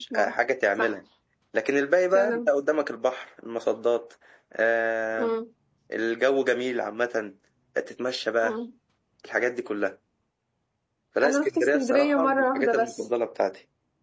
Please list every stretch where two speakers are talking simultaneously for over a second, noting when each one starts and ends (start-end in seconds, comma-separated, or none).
11.2-12.9